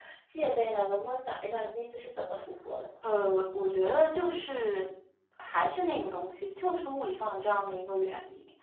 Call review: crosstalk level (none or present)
none